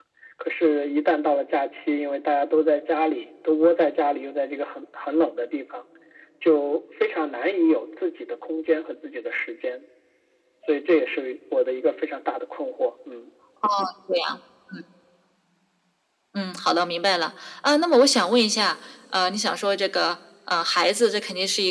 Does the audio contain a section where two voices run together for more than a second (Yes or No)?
No